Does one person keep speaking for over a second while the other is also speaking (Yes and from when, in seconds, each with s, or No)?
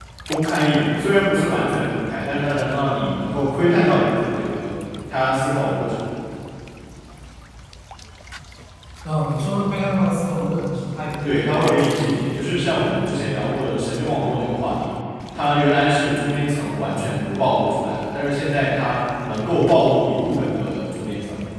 Yes, from 11.2 s